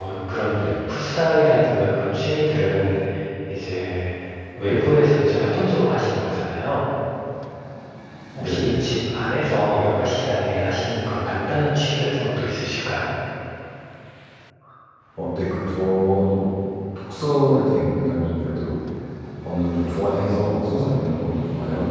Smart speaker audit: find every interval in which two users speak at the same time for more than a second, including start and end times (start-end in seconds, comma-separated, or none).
none